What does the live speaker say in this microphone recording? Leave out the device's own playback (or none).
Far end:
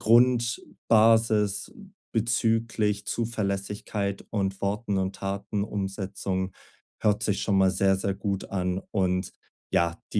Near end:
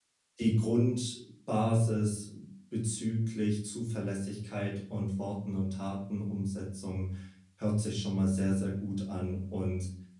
none